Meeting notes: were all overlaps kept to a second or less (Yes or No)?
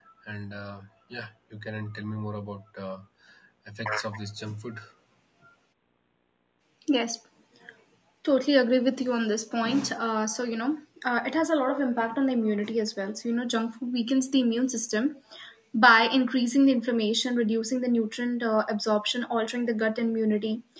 Yes